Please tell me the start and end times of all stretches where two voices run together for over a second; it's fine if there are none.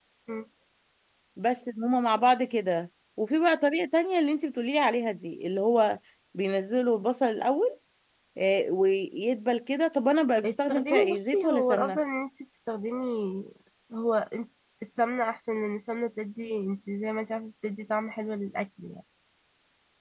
10.4-12.0

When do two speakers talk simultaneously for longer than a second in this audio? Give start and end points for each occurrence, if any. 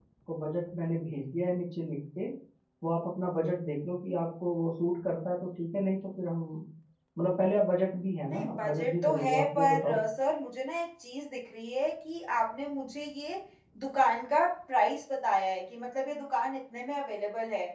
8.3-10.0

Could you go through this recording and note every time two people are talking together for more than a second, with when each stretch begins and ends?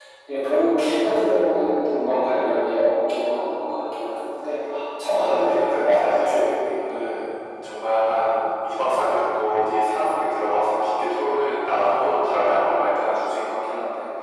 5.1-6.5

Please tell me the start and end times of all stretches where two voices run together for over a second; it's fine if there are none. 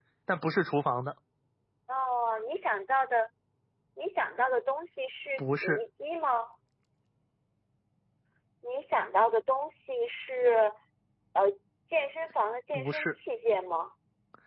none

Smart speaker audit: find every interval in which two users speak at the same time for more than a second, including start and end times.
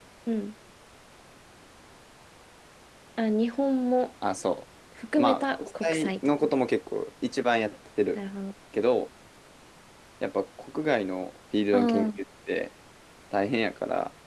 5.2-6.5

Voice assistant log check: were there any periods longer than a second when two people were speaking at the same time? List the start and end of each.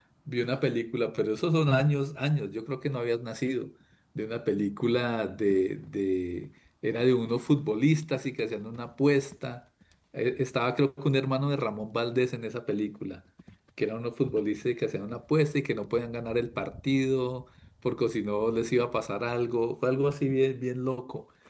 none

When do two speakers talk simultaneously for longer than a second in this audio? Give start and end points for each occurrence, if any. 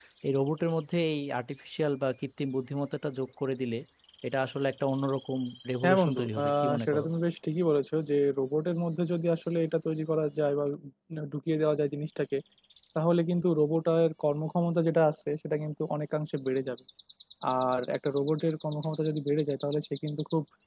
5.8-7.0

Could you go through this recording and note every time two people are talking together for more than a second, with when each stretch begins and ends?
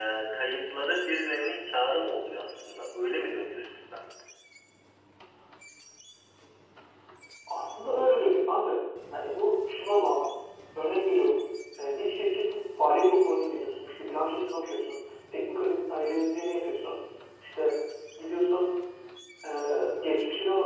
none

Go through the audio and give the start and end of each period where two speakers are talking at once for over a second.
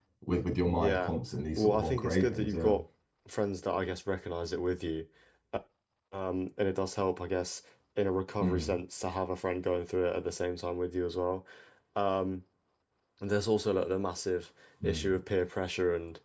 1.6-2.8

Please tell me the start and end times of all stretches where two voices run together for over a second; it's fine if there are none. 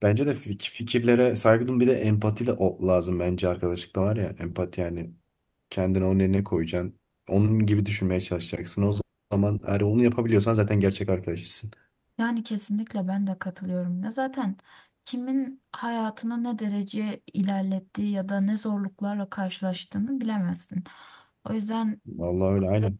none

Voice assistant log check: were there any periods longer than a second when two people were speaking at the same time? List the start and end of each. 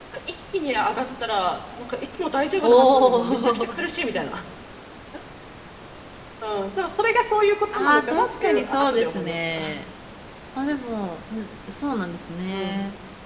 2.6-3.8, 7.7-9.7

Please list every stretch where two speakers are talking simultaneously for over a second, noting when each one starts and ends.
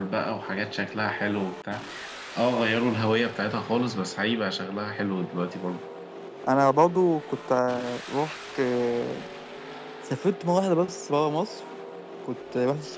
none

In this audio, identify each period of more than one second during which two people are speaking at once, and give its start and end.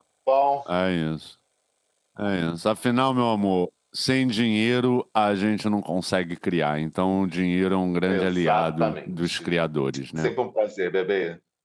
8.1-9.5

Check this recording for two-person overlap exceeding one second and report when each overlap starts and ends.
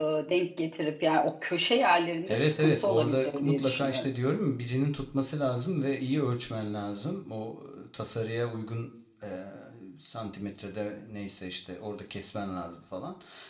2.3-4.1

